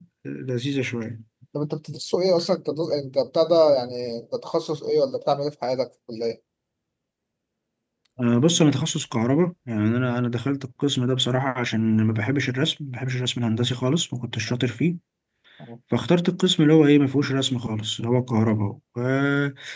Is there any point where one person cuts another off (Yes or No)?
No